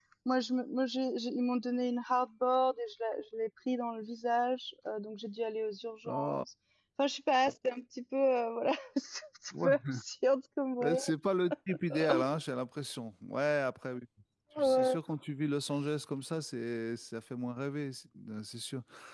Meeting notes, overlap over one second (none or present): none